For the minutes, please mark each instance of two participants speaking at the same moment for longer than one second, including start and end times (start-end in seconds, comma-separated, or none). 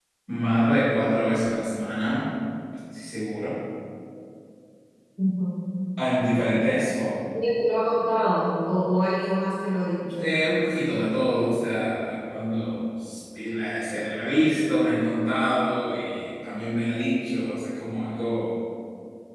none